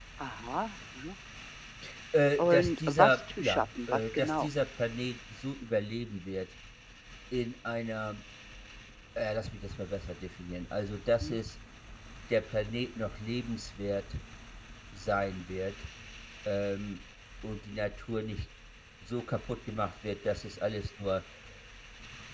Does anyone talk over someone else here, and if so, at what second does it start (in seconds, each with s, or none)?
2.4 s